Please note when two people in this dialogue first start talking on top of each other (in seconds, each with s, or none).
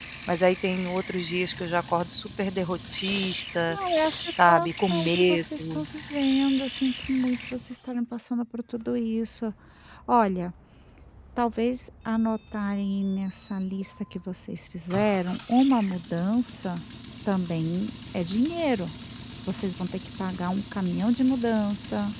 4.3 s